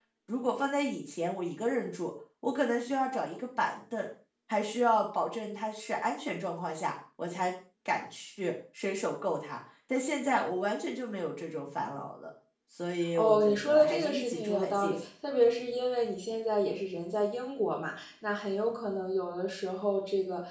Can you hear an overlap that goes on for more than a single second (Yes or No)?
Yes